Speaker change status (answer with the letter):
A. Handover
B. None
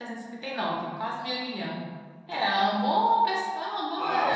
A